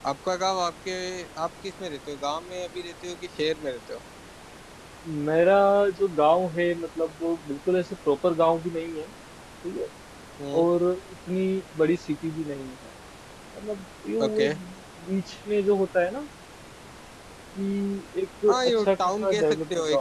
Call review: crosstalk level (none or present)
present